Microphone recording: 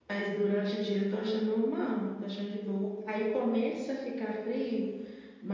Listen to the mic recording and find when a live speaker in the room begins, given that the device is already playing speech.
none

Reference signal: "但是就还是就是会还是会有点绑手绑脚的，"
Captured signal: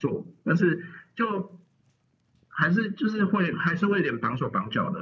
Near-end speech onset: none

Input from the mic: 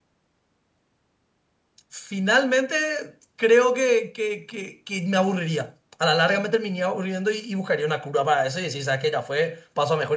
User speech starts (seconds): 1.9 s

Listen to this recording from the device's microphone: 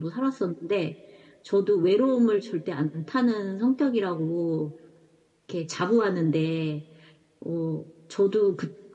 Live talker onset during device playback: none

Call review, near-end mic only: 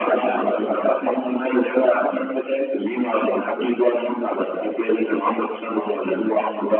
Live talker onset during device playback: none

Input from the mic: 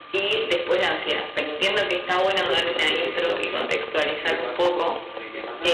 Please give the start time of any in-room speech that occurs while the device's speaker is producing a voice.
2.4 s

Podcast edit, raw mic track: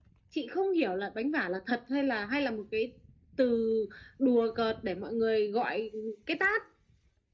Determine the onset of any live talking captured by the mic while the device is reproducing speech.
none

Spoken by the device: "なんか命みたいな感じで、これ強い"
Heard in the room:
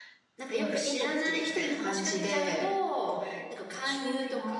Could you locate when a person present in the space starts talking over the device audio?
0.3 s

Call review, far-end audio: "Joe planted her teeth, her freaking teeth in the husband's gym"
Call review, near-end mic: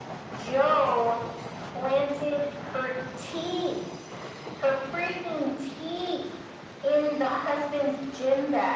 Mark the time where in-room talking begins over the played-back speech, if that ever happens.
none

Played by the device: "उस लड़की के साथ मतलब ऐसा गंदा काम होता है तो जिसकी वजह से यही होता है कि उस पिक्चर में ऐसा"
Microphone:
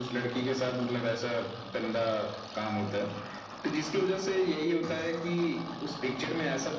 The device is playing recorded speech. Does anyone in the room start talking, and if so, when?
none

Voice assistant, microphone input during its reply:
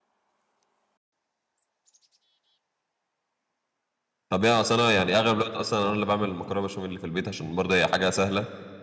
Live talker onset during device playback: 4.3 s

